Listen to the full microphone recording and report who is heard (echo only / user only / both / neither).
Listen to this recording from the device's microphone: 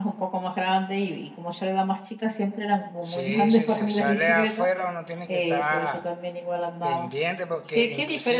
both